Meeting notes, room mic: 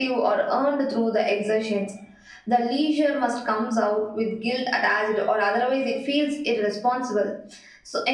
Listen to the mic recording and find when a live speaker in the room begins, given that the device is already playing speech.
none

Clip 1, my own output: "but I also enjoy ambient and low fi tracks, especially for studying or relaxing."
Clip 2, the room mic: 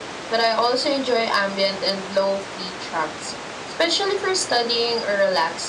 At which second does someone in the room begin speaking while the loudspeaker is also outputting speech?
none

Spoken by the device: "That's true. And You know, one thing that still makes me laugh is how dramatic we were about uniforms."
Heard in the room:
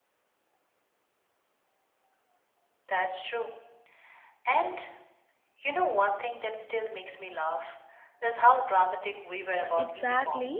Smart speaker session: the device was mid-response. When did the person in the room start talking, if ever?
9.6 s

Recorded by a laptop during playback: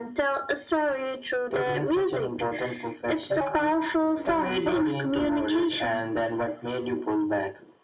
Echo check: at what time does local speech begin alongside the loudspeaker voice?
none

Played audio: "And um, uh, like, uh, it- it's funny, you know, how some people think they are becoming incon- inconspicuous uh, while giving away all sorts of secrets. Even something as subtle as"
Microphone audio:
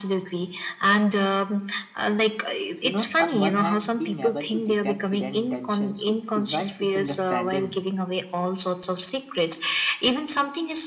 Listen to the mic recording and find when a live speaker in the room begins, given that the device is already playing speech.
2.8 s

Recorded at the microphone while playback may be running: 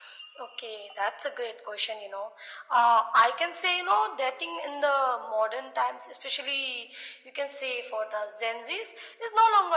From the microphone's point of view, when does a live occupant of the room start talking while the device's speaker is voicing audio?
none

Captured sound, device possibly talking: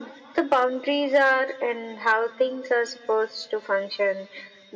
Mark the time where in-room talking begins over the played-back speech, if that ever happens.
none

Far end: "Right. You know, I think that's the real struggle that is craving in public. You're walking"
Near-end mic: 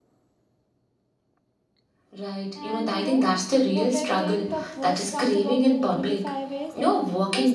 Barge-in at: 2.5 s

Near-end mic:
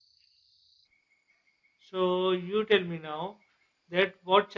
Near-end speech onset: 1.9 s

